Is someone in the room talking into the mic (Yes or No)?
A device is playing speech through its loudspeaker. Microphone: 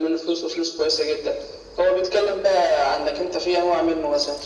No